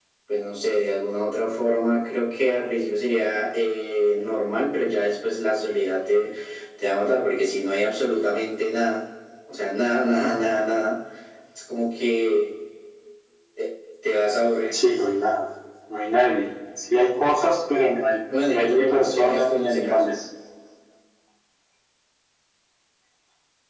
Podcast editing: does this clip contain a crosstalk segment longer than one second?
Yes, from 18.3 s

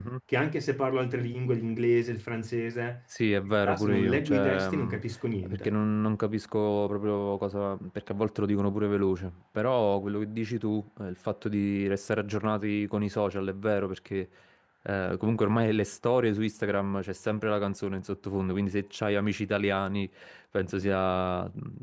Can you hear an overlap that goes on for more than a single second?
Yes, from 3.5 s

